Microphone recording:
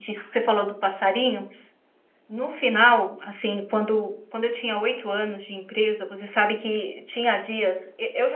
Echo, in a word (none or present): none